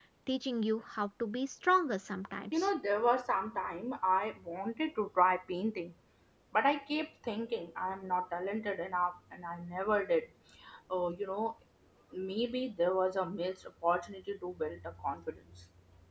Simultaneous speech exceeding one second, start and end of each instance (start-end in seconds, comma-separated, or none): none